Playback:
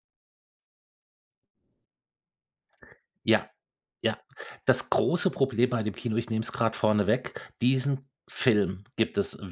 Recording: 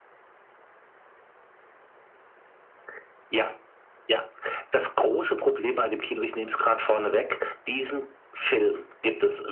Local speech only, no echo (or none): none